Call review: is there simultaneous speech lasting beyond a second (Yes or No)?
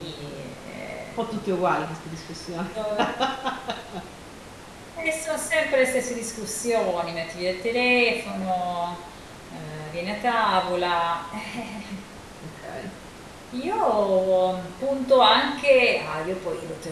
No